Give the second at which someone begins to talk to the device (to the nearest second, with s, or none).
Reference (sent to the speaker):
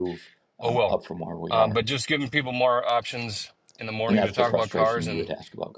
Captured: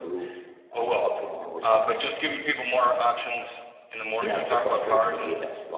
none